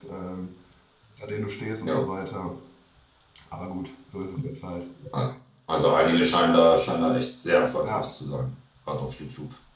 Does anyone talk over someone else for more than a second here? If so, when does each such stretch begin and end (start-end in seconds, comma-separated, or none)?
none